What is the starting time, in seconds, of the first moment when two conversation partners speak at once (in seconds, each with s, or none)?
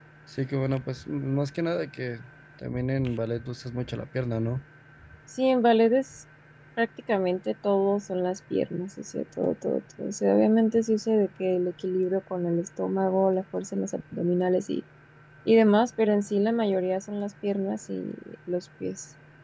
none